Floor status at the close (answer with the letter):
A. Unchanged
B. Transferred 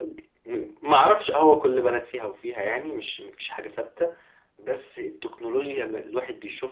A